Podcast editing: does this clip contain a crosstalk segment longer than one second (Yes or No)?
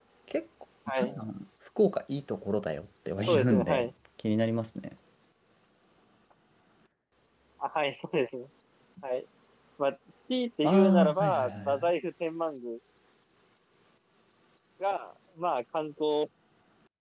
Yes